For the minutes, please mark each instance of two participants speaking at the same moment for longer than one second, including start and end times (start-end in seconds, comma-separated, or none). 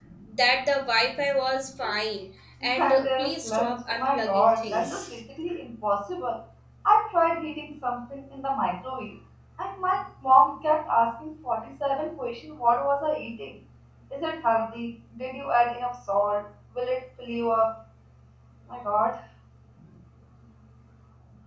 2.6-5.2